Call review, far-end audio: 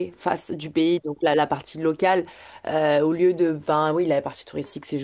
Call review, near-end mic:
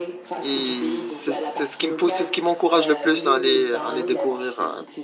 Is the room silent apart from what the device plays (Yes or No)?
No